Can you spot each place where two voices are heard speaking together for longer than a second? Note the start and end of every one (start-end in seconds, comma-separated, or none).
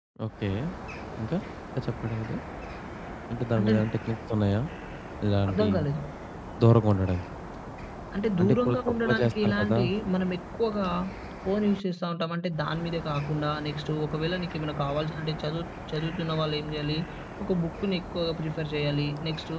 8.4-9.8